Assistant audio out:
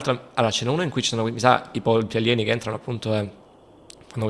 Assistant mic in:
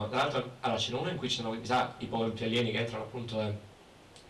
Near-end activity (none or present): none